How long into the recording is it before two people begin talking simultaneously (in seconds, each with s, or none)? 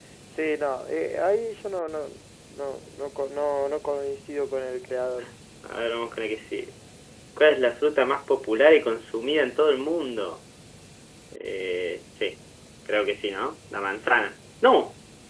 none